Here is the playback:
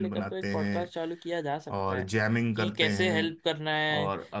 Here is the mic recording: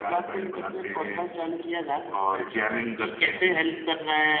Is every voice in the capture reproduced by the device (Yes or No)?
Yes